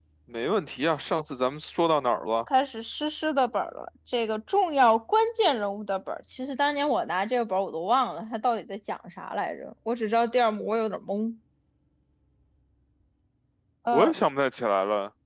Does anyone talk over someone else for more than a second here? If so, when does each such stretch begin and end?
none

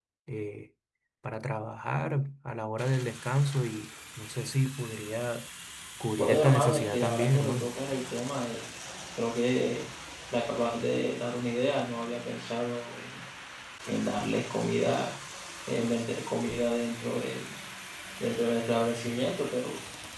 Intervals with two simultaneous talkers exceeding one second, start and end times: 6.2-7.7

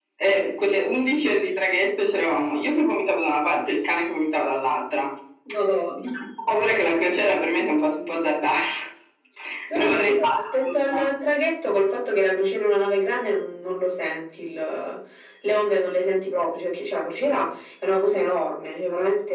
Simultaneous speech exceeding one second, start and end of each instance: 9.7-11.0

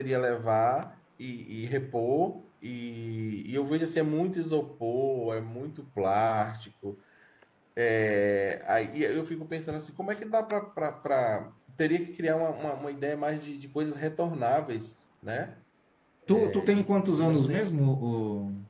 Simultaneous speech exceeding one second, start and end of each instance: 16.3-17.8

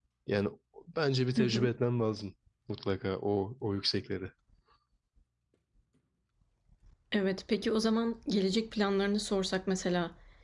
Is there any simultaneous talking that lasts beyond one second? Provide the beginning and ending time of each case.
none

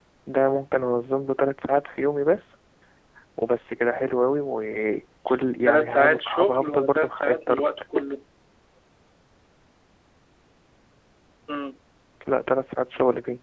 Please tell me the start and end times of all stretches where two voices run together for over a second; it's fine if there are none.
5.7-7.7

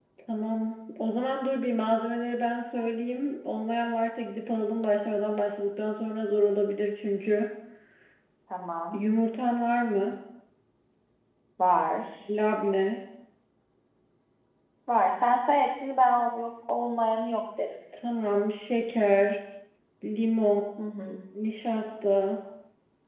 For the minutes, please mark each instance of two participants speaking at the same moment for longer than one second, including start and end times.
none

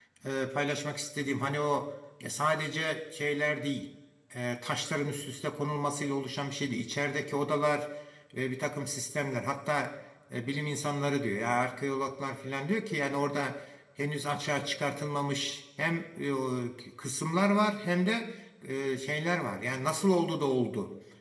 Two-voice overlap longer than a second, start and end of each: none

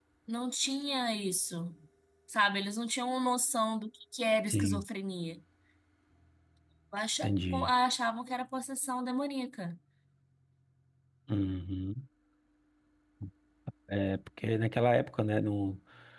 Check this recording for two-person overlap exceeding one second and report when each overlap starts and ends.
none

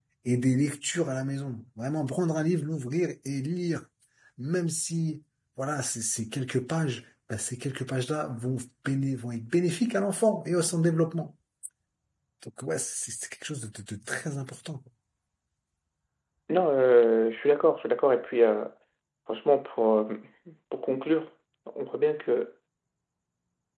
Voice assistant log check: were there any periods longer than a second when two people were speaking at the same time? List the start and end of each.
none

